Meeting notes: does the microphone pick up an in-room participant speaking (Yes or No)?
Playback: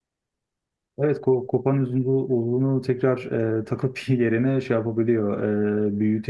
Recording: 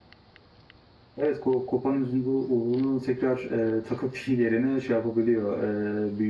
No